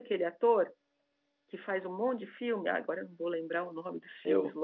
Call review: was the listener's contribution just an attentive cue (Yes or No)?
No